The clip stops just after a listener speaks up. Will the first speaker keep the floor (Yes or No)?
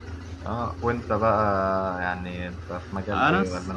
No